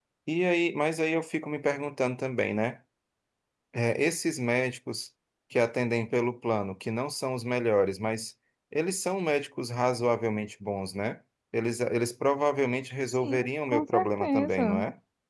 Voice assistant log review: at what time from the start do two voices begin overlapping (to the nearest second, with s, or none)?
13 s